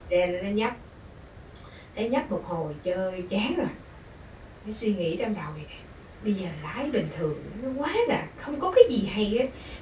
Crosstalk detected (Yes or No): No